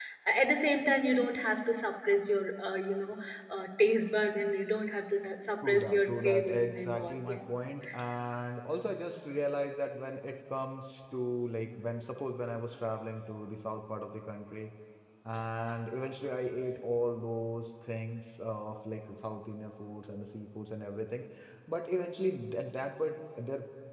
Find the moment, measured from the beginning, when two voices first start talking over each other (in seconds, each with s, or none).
5.6 s